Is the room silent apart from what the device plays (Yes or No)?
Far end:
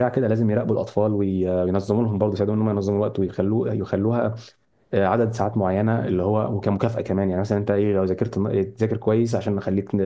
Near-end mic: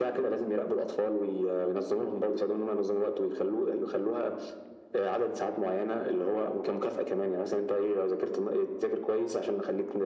Yes